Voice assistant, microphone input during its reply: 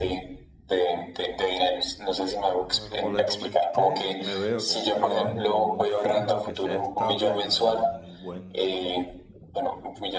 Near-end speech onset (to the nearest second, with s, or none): 3 s